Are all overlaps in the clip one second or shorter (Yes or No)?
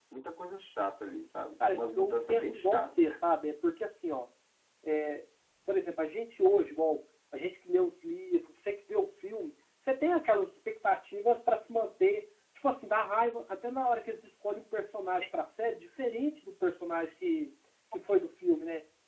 No